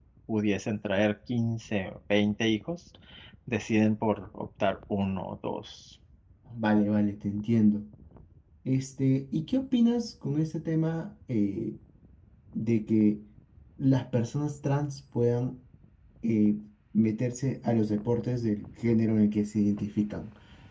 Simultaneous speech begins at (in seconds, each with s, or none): none